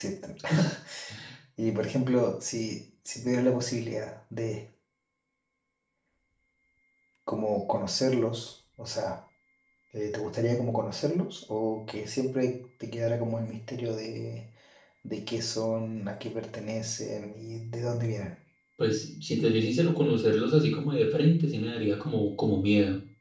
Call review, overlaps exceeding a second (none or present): none